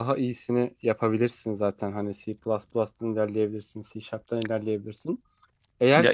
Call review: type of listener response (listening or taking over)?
taking over